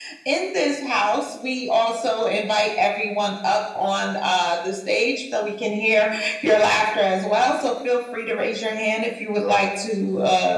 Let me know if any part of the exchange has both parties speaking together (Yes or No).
No